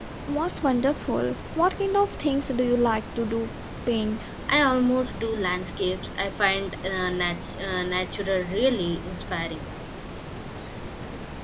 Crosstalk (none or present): none